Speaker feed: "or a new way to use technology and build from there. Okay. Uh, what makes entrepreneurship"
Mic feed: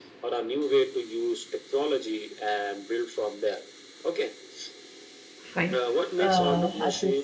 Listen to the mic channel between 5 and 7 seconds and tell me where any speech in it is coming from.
both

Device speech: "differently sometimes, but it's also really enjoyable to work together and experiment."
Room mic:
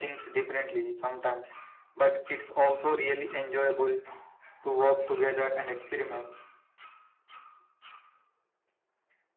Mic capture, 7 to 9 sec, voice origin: neither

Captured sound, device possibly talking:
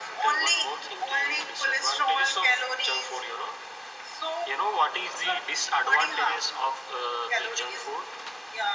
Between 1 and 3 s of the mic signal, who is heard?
echo only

